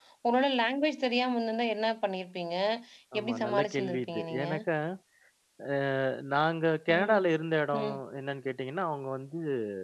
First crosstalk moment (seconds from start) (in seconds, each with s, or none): 3.2 s